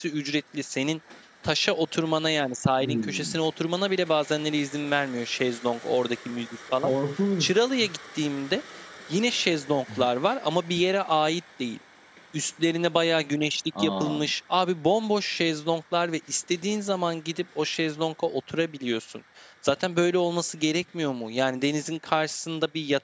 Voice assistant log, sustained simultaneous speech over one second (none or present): none